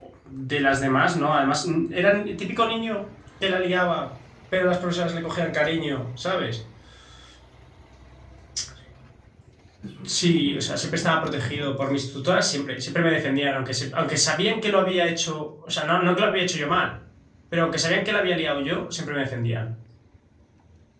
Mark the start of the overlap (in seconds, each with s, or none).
10.1 s